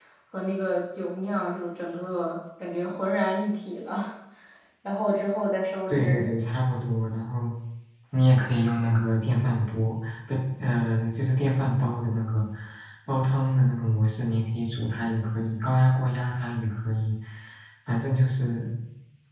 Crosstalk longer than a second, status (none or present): none